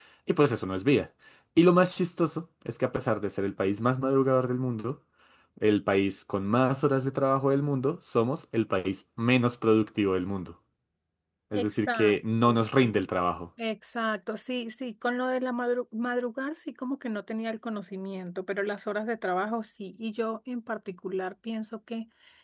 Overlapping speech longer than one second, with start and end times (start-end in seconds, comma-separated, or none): 11.5-13.0